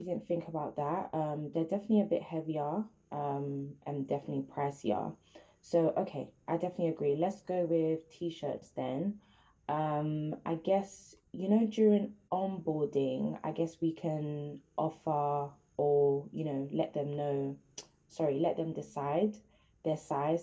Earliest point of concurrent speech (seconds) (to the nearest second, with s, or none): none